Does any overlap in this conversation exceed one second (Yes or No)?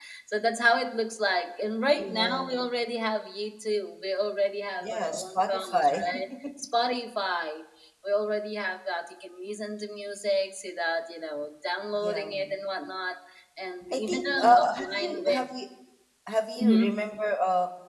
Yes